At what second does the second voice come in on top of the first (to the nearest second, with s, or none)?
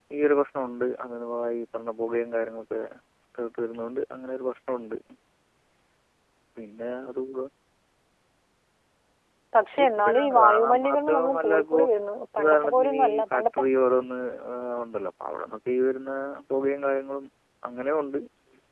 10 s